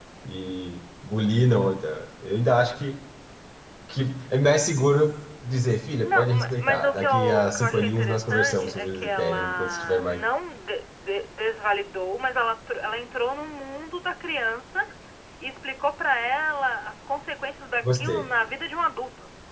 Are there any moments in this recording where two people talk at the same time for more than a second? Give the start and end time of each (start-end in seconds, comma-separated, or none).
6.0-10.2